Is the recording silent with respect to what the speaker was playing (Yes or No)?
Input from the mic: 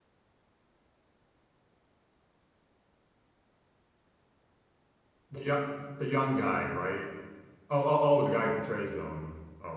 Yes